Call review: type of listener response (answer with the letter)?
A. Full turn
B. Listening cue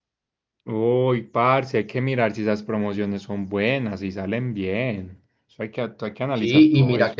A